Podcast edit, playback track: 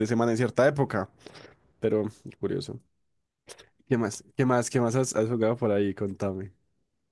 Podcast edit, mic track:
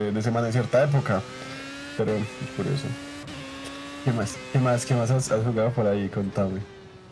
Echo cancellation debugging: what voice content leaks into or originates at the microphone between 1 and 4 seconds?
echo only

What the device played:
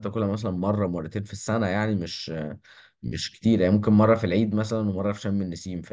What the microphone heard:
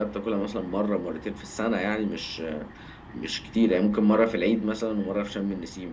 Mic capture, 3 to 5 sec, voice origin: echo only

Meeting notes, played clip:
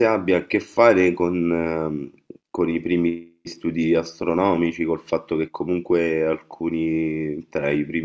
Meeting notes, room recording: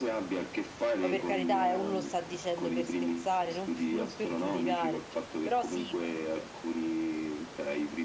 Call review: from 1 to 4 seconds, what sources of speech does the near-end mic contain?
both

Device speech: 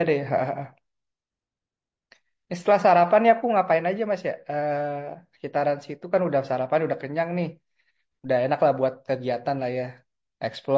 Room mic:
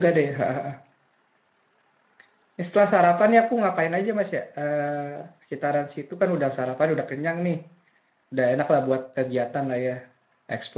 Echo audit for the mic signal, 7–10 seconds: echo only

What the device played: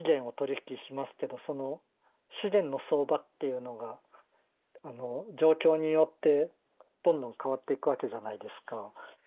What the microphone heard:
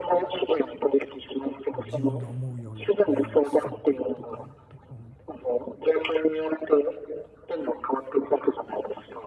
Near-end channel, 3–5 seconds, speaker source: both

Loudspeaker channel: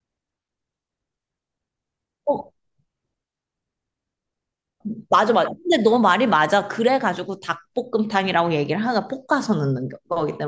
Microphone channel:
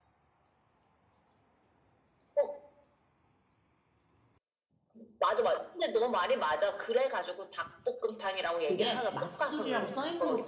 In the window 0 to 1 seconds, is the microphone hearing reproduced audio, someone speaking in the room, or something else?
neither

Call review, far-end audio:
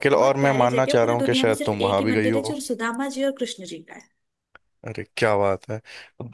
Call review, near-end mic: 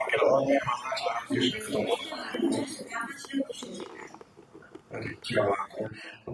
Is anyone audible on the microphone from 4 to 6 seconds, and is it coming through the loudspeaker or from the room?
echo only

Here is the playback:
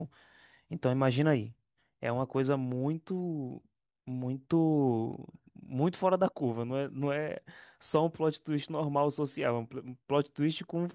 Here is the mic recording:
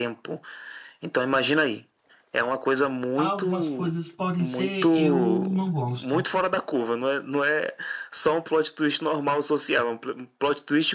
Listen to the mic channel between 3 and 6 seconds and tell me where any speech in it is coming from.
both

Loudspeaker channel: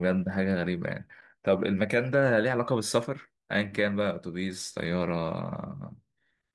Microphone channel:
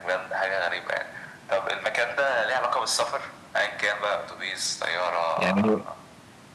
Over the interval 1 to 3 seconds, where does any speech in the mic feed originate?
echo only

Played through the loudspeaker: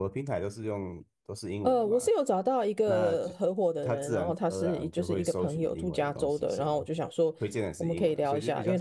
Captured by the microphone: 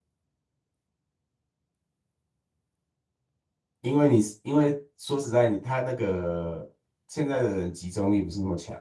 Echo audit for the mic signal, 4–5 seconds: user only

